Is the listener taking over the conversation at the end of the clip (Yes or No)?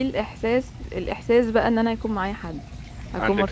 No